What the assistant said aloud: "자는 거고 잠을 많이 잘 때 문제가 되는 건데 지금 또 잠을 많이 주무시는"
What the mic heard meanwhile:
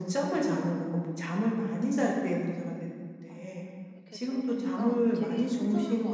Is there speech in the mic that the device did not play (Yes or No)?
Yes